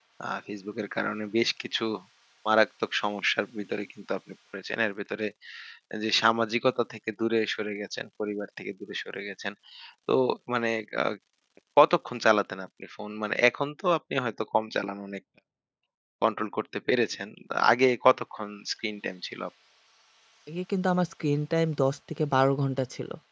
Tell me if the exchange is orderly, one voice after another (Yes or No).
Yes